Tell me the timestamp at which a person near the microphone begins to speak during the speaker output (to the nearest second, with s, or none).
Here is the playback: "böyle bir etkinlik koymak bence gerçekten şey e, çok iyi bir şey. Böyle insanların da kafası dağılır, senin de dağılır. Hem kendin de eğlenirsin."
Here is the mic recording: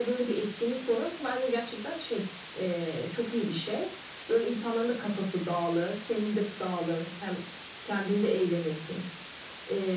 none